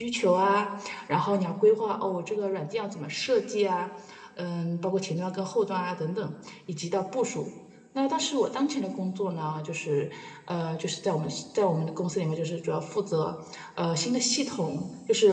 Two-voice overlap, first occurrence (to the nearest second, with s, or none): none